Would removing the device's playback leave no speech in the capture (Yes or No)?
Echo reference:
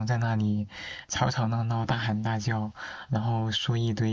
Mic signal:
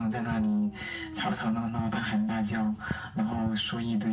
Yes